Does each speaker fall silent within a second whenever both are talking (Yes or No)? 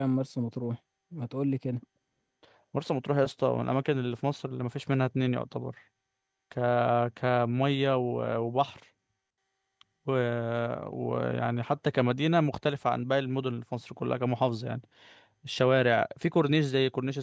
Yes